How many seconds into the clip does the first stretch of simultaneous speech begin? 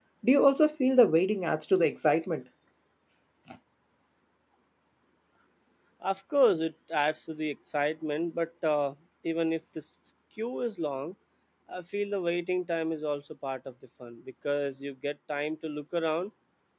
none

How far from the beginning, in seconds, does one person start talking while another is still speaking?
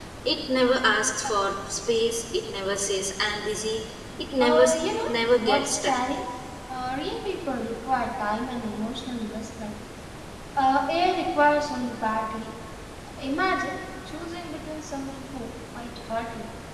4.4 s

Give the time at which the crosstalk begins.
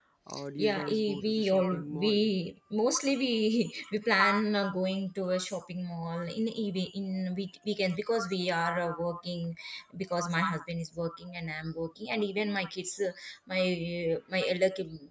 0.6 s

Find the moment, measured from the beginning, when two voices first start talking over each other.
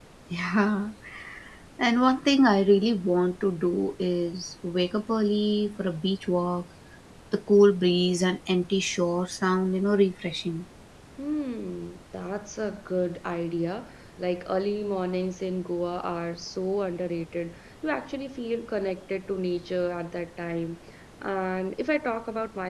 none

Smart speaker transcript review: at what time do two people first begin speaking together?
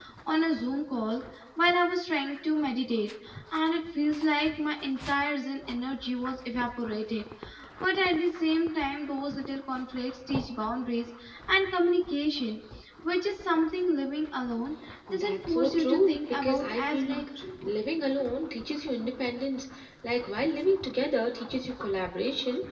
15.1 s

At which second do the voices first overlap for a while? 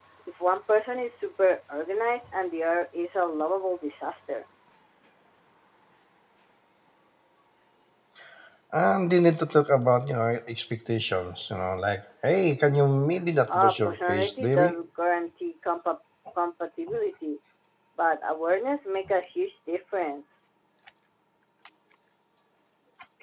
13.5 s

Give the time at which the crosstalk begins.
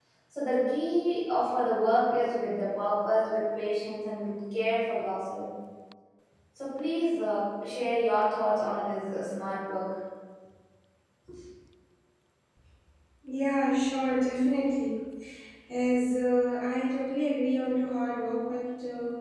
none

